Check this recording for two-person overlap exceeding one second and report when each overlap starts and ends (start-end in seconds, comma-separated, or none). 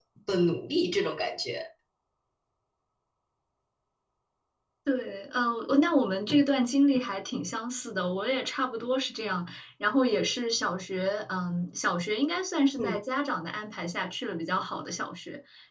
none